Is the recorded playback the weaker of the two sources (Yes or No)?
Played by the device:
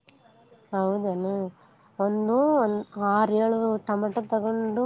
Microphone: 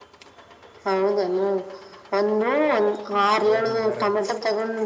No